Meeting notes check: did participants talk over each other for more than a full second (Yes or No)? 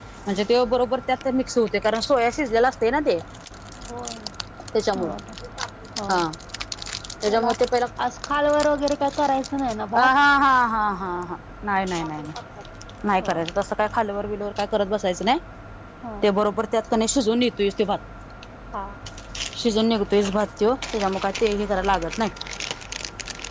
No